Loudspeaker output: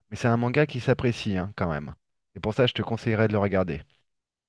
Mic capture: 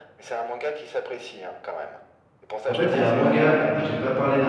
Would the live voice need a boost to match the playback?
No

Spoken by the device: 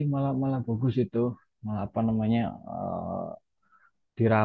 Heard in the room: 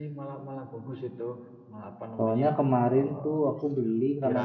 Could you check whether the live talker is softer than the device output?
No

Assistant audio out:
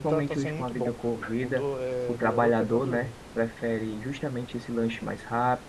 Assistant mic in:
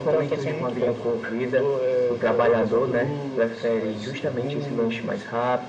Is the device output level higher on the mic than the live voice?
Yes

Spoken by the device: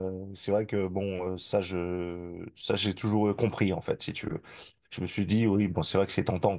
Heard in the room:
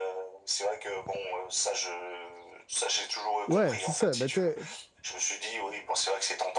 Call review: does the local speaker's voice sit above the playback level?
Yes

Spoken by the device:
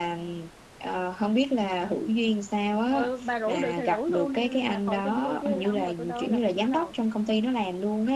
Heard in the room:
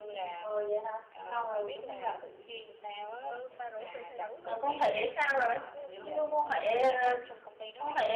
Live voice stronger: Yes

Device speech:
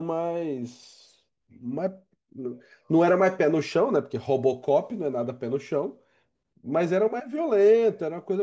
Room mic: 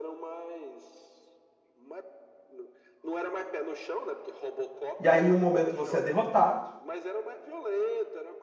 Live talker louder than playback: Yes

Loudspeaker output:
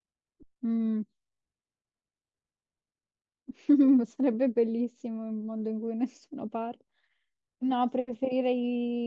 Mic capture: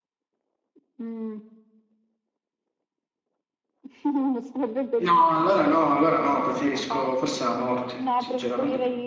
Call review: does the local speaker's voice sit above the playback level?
Yes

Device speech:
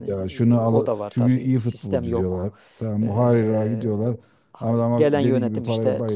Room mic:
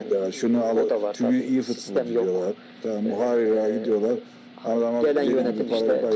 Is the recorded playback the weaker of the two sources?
No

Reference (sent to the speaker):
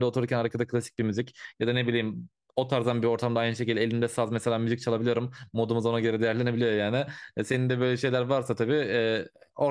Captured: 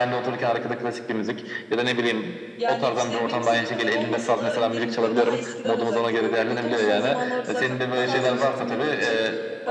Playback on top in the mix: Yes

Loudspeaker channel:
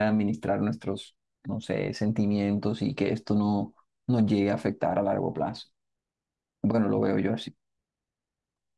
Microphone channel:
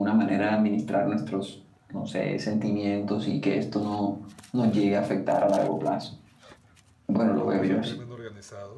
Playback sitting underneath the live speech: No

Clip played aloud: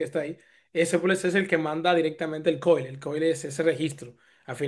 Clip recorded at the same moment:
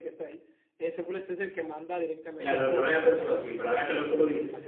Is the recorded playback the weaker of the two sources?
Yes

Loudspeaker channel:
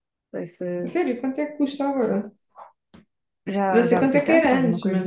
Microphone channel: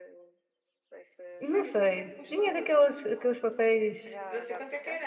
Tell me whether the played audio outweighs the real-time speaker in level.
No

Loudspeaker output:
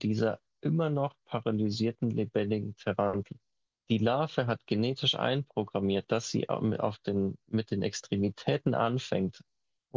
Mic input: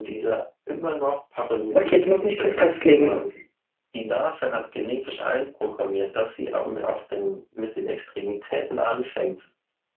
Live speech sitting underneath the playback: No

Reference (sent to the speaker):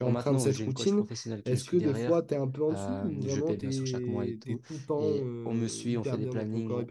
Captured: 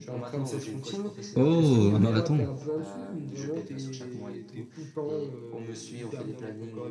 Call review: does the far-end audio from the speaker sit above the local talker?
No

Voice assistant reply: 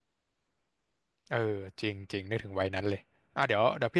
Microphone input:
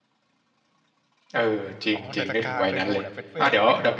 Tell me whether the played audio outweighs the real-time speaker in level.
Yes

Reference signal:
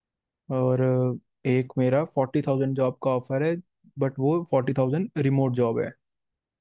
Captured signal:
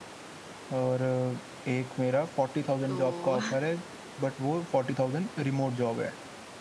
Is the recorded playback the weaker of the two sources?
No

